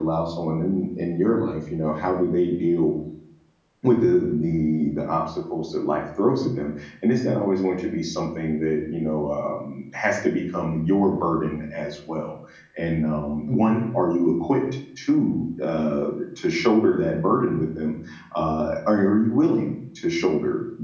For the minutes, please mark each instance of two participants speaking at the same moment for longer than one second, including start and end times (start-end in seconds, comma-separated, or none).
none